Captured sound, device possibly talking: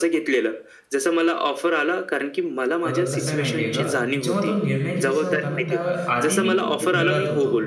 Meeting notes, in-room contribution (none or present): present